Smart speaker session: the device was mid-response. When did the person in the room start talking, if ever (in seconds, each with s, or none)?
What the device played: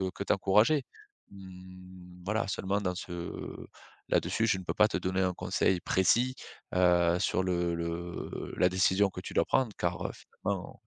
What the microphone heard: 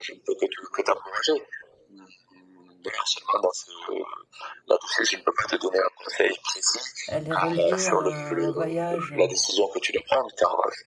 7.1 s